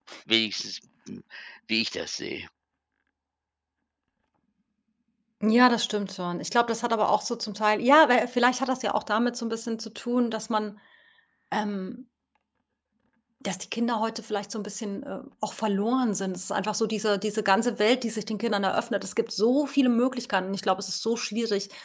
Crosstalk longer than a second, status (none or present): none